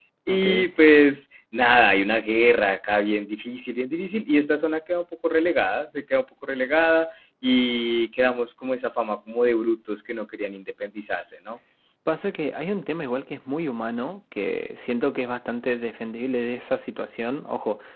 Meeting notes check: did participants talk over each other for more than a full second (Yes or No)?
No